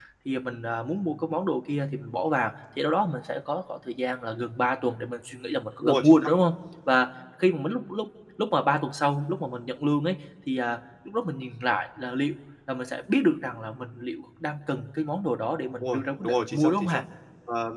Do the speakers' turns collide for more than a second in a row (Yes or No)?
Yes